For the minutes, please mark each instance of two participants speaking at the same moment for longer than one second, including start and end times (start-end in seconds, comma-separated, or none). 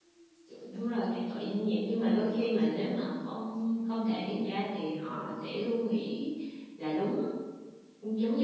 0.7-2.9